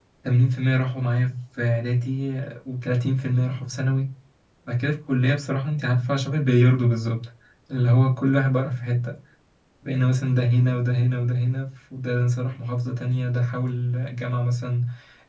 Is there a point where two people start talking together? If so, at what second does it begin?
none

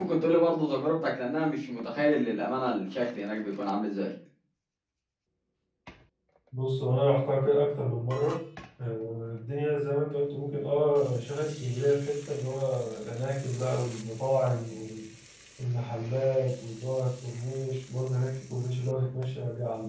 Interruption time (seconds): none

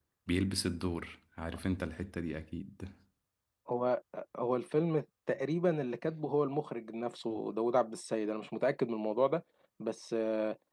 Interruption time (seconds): none

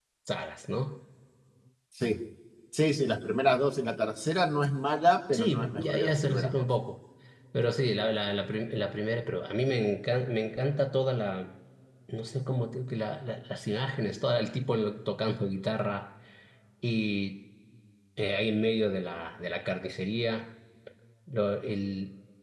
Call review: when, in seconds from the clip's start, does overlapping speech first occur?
5 s

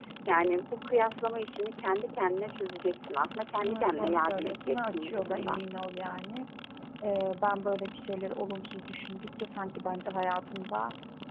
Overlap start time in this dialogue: 4 s

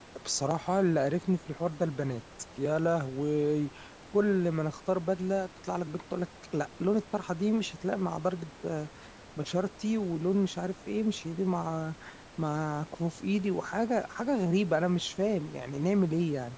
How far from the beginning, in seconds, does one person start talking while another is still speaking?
none

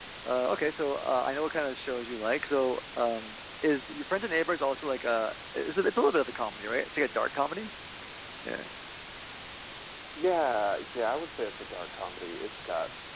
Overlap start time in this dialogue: none

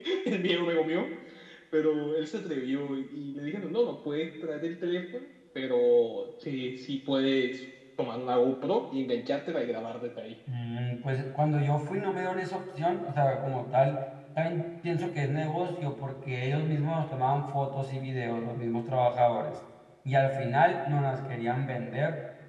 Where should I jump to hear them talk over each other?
none

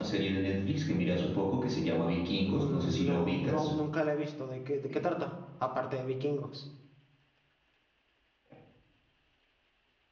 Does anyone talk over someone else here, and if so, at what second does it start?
2 s

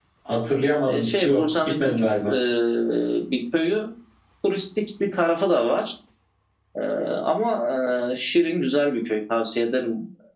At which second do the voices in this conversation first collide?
1 s

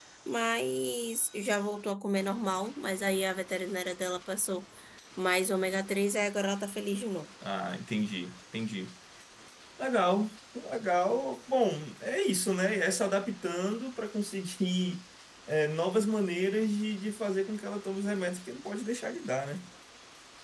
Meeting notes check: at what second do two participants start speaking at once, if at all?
none

